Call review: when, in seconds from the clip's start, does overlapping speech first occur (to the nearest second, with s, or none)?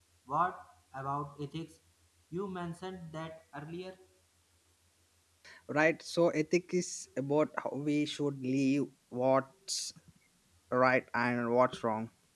none